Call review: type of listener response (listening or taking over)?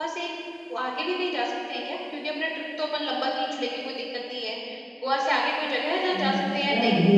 taking over